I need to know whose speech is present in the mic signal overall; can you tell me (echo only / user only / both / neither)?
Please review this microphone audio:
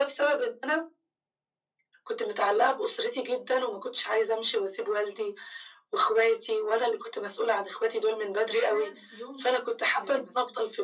both